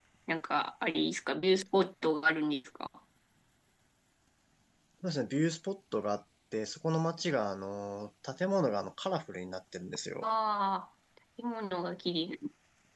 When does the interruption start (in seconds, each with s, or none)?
none